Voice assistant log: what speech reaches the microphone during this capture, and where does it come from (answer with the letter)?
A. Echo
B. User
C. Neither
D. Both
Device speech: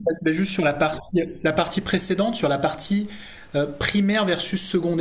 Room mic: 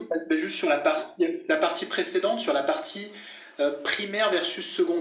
A